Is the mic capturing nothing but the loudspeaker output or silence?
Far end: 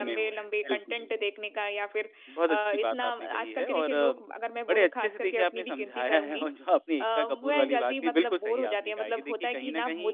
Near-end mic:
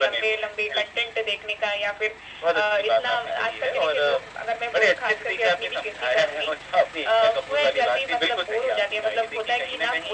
Yes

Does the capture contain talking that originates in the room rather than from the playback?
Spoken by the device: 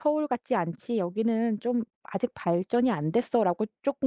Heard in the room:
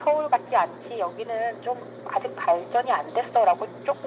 No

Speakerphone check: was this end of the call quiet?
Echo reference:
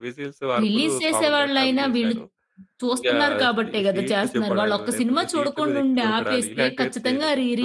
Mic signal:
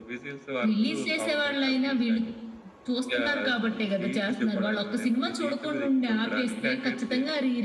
Yes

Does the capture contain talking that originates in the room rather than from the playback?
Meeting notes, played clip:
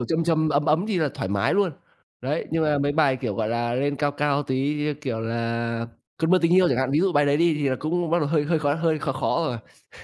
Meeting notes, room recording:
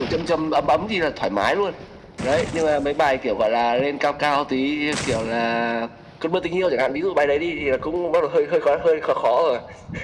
No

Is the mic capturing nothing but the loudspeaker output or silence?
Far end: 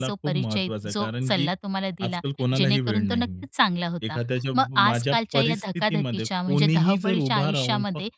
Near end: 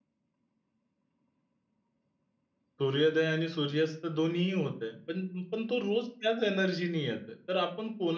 No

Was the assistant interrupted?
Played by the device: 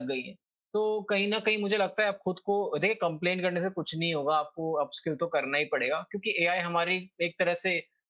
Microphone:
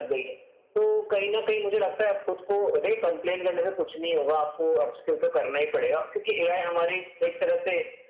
No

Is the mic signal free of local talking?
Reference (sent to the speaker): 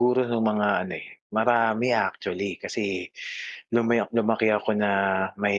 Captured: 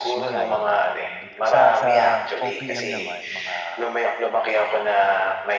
No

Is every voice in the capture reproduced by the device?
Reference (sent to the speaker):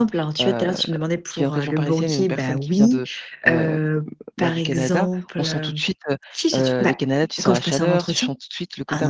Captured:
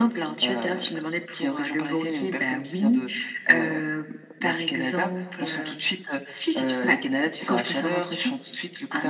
Yes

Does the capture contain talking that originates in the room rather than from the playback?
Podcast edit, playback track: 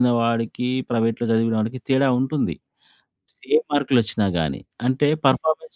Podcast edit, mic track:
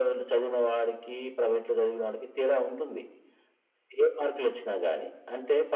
No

